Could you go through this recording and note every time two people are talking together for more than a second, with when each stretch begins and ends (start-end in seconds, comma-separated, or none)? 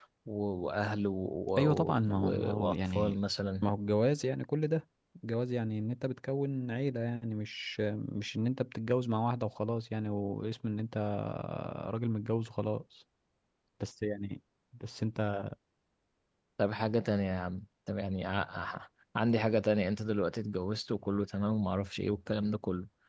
1.6-3.1